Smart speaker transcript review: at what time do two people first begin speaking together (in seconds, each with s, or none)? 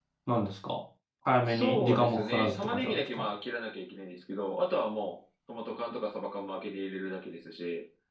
1.5 s